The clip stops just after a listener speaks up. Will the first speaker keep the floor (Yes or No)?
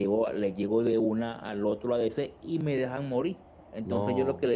Yes